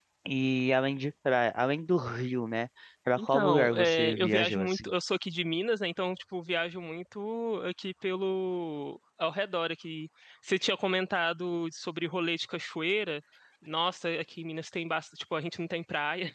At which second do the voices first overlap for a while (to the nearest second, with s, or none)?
3 s